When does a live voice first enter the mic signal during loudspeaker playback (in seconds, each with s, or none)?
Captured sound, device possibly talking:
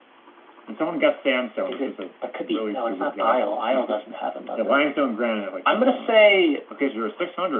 none